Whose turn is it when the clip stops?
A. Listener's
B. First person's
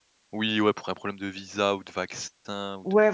A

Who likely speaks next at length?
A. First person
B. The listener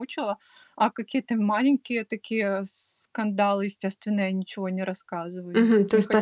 B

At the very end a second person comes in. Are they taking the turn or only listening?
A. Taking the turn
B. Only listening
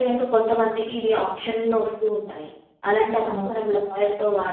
B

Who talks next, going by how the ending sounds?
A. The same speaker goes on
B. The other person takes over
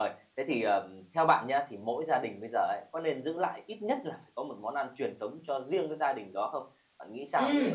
B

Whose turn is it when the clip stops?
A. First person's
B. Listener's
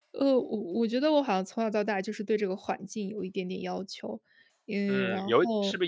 B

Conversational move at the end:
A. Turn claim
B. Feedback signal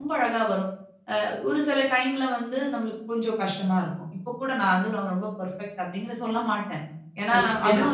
A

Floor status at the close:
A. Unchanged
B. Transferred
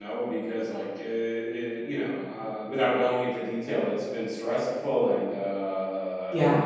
A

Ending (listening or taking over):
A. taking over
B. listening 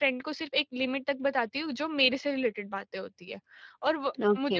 B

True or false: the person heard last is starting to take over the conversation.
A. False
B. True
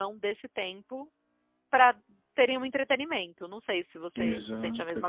B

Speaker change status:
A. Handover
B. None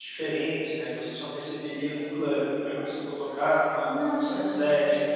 B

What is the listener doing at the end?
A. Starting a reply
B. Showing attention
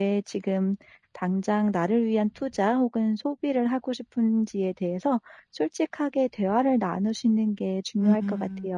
A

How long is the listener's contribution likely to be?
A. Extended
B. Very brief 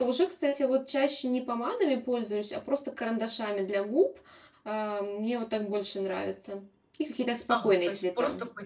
A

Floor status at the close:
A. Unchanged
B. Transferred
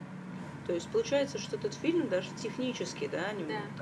A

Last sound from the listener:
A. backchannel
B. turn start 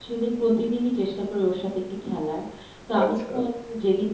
A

